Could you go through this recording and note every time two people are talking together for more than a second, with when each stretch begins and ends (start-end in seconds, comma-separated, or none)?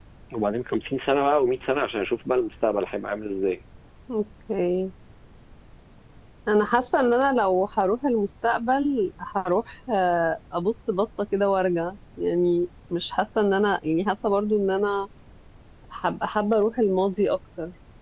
none